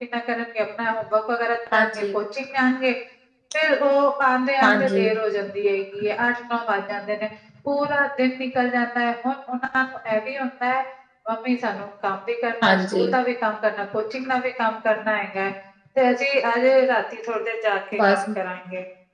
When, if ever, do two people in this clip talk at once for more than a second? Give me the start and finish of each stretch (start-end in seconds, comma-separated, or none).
none